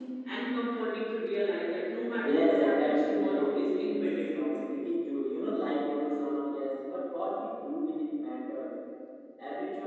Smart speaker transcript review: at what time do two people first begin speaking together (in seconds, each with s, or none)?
2.2 s